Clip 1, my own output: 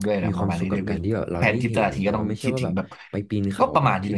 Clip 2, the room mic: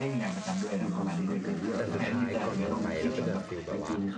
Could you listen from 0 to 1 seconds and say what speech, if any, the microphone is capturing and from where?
echo only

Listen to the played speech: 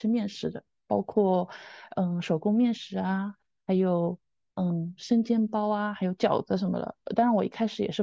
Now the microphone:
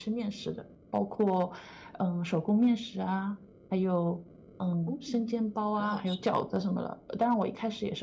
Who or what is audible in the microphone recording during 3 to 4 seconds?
echo only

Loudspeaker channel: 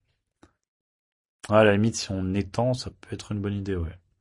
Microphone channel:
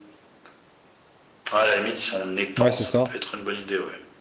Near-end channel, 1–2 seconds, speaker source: echo only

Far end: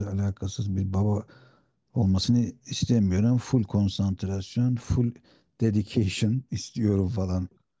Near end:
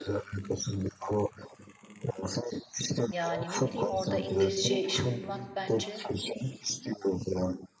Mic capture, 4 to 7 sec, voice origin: both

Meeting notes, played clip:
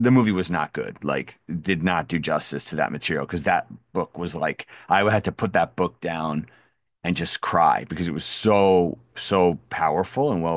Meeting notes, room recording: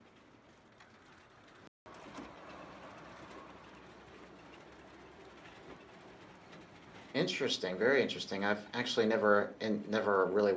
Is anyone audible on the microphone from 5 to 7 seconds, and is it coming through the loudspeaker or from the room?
neither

